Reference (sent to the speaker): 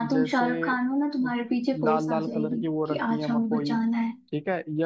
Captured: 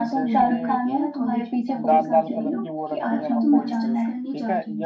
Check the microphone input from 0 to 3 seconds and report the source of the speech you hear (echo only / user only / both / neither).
both